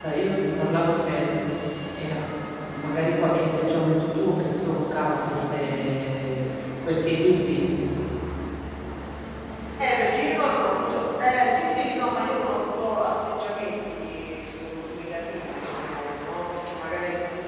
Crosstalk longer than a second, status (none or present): none